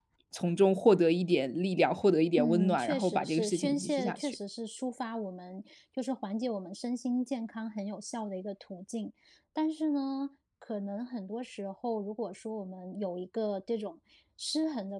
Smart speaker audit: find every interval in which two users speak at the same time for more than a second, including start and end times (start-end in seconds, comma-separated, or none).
2.4-4.3